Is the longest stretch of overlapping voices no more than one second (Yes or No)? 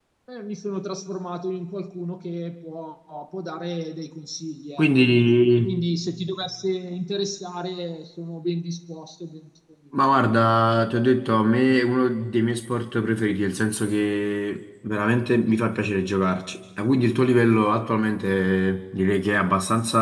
Yes